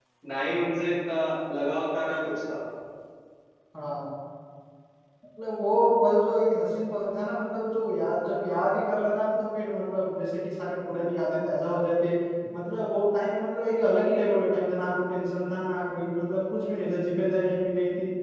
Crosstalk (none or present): none